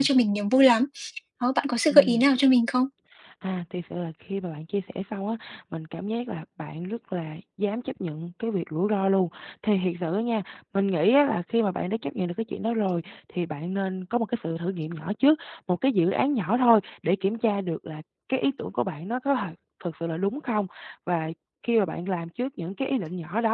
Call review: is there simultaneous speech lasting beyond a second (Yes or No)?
No